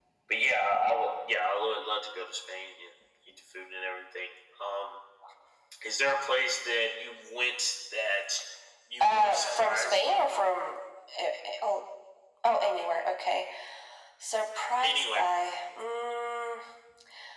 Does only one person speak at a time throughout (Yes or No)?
No